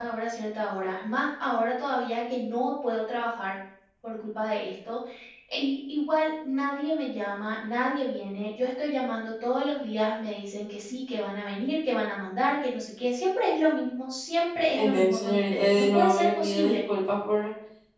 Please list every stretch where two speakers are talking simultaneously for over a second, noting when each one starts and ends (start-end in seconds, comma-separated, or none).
14.8-16.8